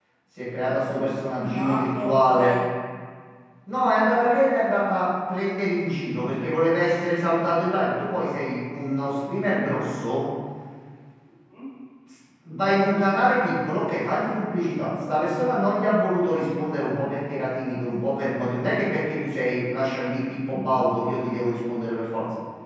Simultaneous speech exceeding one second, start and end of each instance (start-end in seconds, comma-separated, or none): 1.2-2.5